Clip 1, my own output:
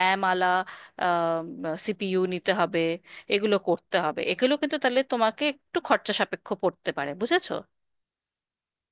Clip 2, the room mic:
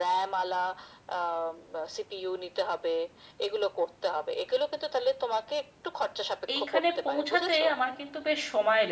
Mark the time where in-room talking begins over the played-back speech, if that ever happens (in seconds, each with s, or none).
6.5 s